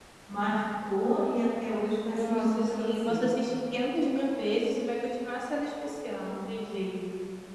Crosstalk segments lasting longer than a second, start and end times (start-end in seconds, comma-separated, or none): 2.0-3.3